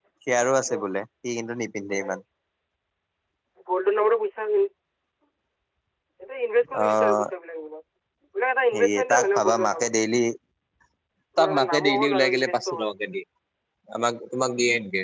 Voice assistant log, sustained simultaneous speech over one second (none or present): present